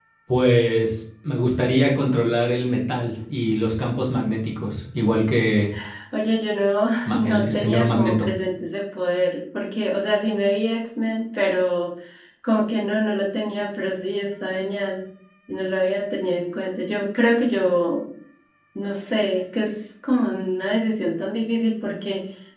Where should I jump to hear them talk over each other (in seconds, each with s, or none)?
7.1 s